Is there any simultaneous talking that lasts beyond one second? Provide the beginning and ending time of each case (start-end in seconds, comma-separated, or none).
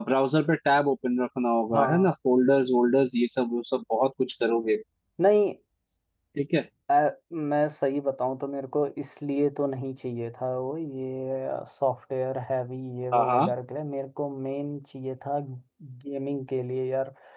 none